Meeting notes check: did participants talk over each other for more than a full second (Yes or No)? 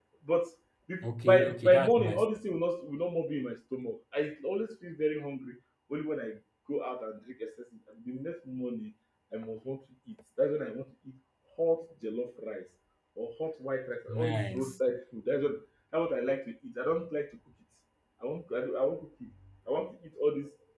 Yes